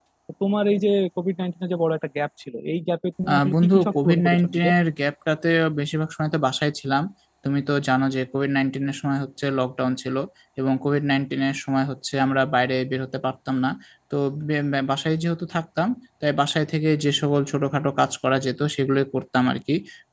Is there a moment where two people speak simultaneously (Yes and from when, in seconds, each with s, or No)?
Yes, from 3.3 s